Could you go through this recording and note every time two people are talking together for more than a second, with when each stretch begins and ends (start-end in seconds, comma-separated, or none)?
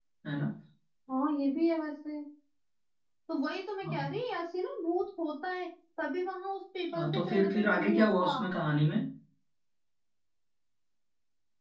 7.0-8.3